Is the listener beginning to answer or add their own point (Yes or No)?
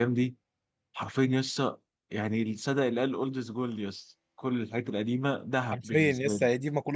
Yes